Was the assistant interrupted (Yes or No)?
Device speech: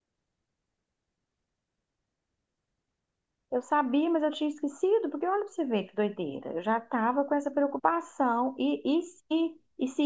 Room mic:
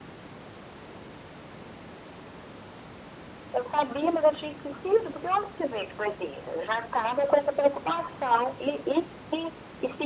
No